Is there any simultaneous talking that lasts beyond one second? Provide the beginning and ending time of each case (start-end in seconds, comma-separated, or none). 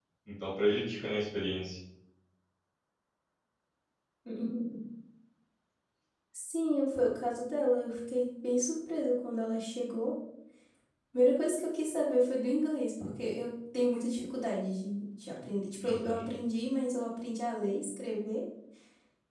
none